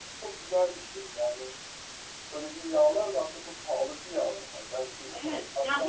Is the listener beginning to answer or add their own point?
Yes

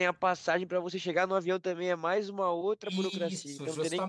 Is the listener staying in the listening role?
No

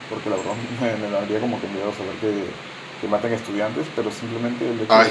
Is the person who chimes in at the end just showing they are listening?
Yes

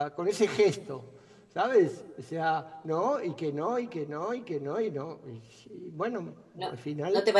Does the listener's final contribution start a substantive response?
Yes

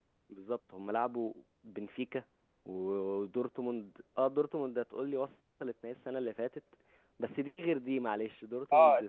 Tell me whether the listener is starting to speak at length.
Yes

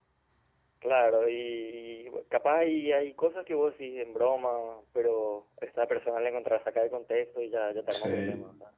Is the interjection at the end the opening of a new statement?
Yes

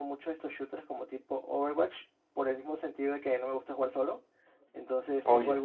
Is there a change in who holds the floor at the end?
No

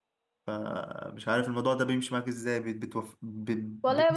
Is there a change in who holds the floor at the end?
Yes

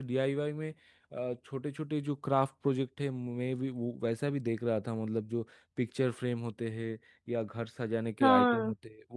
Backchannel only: Yes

